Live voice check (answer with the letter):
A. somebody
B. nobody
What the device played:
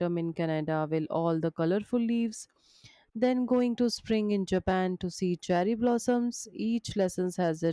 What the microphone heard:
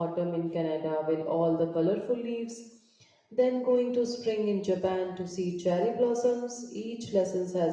B